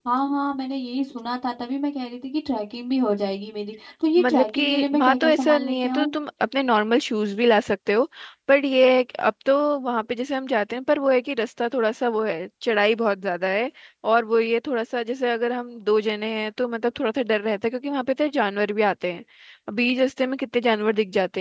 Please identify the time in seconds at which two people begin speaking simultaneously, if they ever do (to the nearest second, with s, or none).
4 s